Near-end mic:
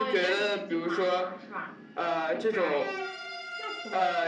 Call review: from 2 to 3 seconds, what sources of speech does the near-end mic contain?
echo only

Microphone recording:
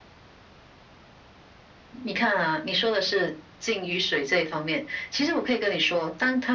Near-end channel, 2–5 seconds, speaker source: echo only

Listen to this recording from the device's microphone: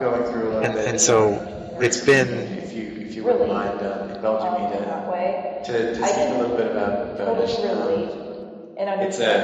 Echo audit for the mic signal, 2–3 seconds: both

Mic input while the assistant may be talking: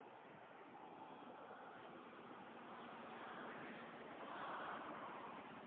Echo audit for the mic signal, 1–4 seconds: neither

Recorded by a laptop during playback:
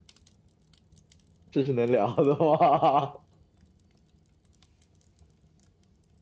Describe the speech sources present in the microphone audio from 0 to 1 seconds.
neither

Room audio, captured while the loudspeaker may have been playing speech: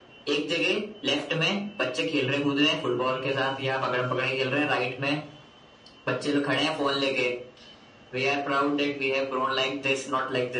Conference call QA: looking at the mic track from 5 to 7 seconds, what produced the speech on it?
echo only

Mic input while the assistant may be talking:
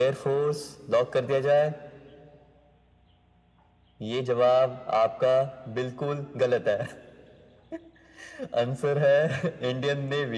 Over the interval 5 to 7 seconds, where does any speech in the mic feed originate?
echo only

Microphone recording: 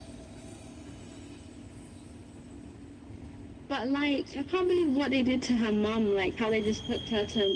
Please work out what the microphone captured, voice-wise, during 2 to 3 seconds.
neither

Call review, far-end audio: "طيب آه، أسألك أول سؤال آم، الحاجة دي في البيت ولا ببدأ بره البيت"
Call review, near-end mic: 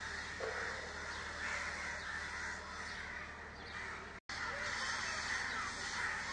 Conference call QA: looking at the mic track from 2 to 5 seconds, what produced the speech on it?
neither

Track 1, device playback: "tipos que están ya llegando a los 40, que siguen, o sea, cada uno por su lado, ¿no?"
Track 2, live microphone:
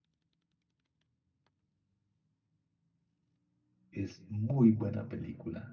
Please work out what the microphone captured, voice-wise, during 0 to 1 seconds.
neither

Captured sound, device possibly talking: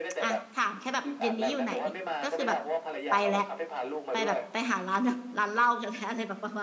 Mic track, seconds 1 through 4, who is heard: both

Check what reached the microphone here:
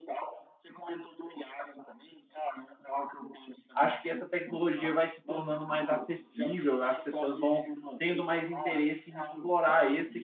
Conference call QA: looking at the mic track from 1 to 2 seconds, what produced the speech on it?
echo only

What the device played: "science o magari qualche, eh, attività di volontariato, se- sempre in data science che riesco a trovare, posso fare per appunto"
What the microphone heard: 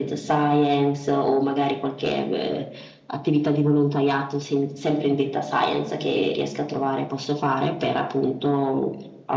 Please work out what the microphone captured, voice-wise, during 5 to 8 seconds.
echo only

